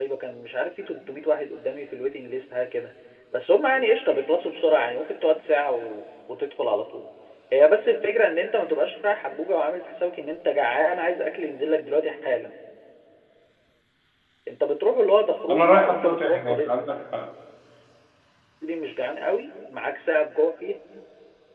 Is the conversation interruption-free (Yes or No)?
No